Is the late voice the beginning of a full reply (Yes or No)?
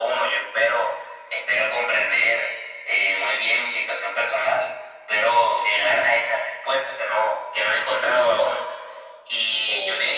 No